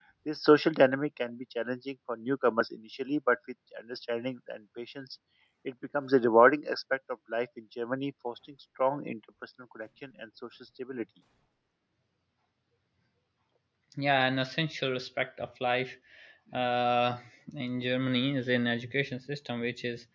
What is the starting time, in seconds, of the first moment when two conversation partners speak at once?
none

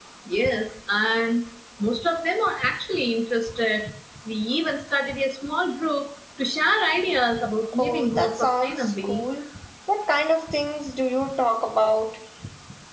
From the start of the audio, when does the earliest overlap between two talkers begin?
7.7 s

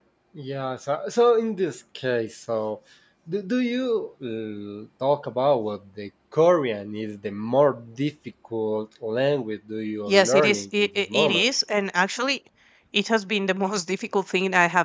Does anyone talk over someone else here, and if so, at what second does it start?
10.1 s

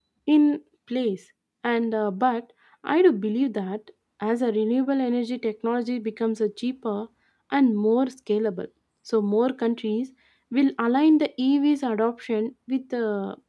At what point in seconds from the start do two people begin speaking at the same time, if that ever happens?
none

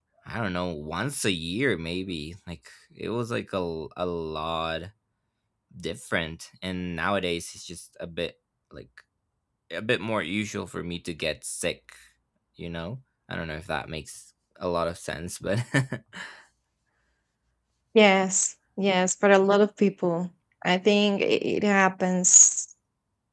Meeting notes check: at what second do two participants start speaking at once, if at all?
none

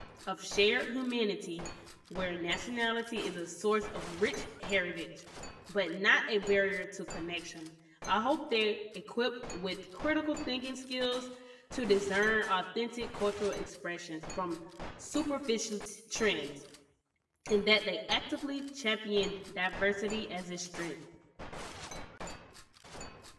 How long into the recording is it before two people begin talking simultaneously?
none

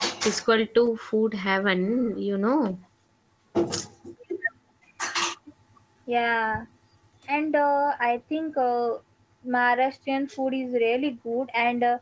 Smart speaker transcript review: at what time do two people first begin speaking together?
none

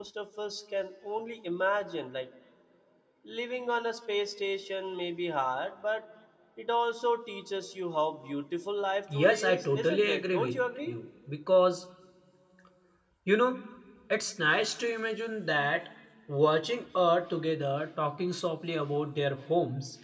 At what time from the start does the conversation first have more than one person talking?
9.1 s

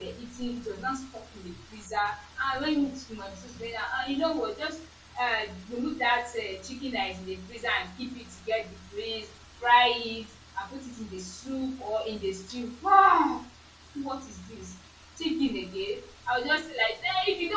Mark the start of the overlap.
none

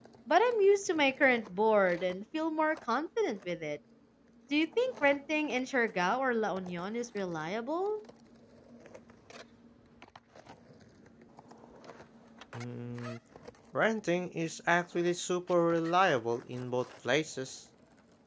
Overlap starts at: none

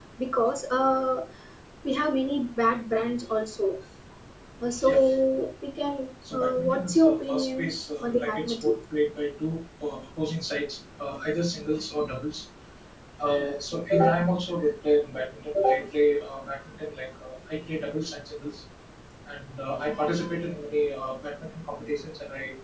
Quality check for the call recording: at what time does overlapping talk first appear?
6.2 s

